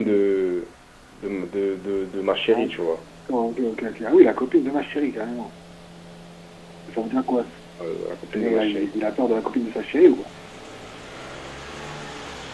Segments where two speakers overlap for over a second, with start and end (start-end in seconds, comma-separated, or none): none